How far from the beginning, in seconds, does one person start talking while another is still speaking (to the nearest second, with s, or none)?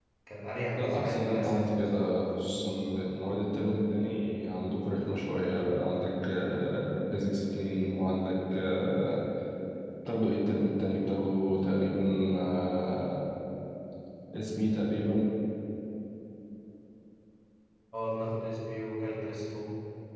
1 s